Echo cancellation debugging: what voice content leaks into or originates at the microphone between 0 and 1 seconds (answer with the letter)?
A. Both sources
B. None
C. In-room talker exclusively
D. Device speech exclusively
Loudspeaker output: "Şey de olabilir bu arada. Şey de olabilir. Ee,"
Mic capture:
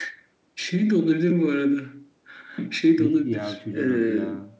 D